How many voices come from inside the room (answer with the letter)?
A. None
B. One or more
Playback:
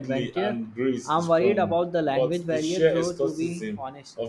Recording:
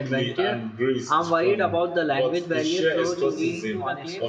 B